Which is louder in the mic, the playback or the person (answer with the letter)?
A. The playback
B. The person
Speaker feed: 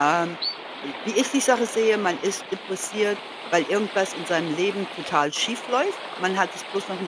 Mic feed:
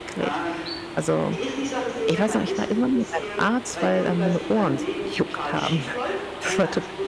B